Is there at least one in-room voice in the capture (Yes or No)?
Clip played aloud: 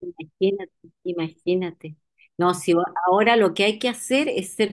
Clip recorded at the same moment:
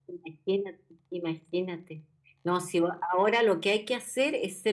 No